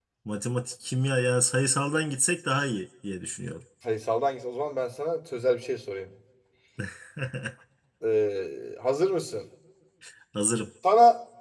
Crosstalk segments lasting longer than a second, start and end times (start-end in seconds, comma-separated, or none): none